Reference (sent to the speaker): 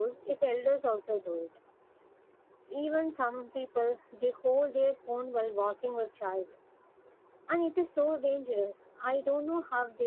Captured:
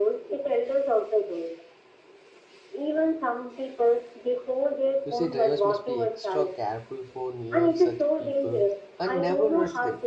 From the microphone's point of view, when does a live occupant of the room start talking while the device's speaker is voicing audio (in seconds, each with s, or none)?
5.0 s